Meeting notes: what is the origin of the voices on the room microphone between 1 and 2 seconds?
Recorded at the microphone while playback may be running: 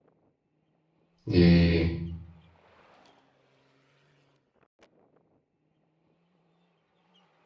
user only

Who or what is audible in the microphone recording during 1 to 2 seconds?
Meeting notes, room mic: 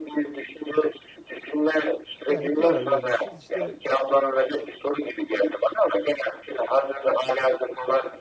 echo only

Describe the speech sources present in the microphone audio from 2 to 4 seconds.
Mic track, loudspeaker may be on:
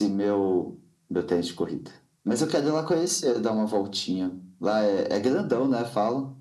echo only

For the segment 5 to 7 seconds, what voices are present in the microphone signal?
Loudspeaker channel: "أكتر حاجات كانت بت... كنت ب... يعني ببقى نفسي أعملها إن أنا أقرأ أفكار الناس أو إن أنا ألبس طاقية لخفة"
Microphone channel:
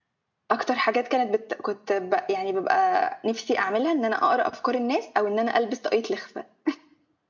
echo only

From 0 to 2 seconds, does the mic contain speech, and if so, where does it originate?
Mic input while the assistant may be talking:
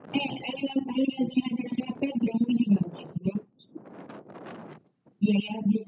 echo only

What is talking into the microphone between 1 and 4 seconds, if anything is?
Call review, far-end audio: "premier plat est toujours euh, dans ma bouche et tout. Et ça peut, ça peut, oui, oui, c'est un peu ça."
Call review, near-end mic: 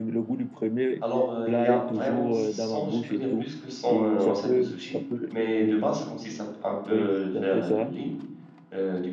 both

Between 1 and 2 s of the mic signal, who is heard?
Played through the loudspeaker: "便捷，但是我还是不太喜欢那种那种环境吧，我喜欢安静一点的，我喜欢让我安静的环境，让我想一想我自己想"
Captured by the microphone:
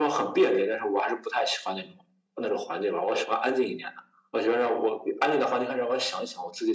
echo only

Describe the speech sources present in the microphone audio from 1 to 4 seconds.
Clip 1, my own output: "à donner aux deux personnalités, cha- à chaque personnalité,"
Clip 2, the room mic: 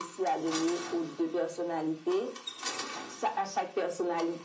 echo only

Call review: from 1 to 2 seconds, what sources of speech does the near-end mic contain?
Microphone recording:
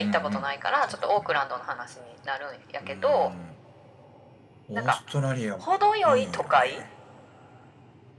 both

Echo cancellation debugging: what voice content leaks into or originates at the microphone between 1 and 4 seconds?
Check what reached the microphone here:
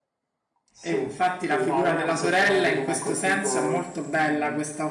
both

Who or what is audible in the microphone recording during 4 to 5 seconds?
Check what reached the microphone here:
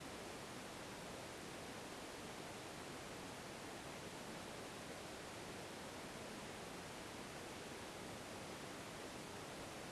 neither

